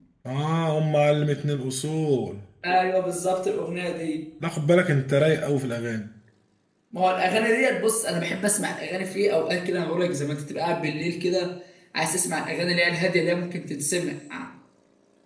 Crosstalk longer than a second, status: none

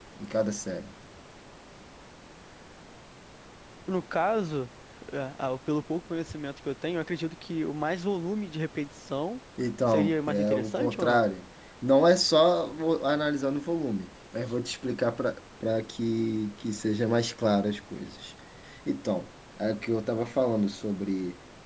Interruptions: present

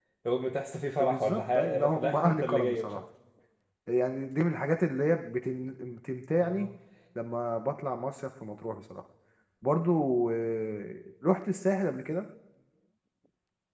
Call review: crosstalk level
present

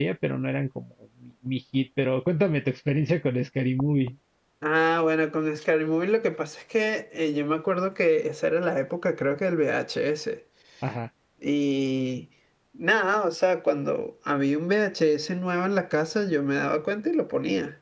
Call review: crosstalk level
none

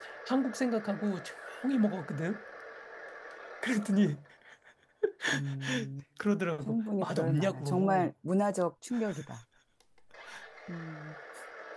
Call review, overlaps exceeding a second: present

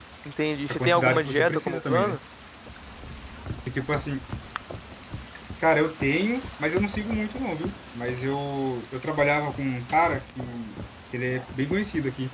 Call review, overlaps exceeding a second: present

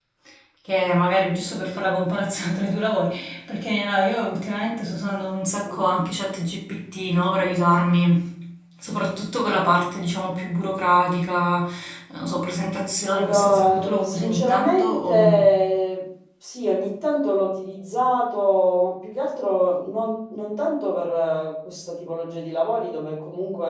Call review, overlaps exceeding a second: present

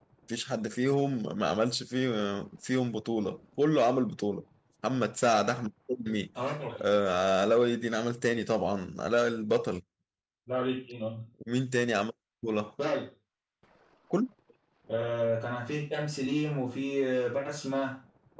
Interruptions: none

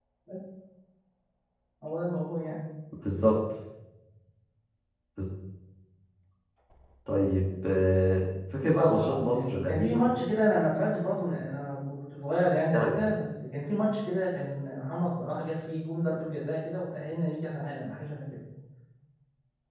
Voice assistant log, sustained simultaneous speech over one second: present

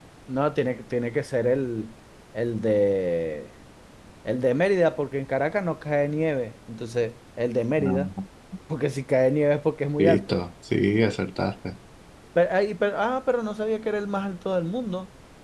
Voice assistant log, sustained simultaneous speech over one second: none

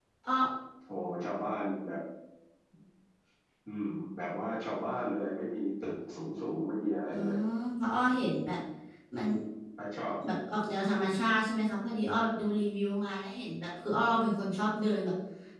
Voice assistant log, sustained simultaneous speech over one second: none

